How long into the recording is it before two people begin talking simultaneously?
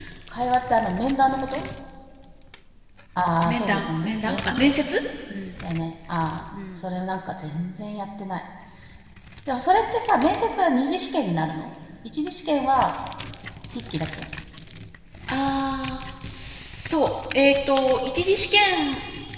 3 s

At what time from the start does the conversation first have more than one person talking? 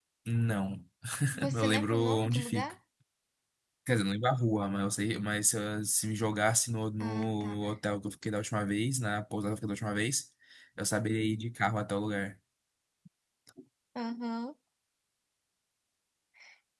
2 s

